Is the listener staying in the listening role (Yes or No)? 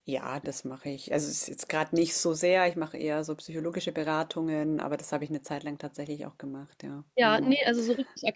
No